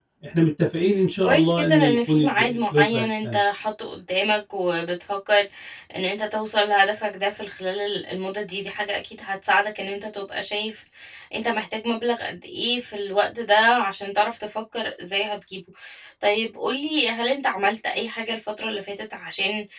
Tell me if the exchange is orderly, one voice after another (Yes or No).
No